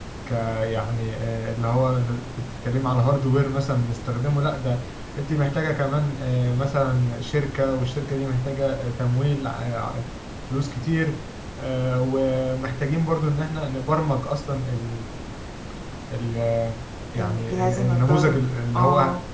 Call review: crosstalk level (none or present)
present